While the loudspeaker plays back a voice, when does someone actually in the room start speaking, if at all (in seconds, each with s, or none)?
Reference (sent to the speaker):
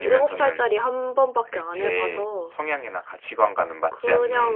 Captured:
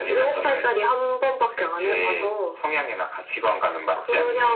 none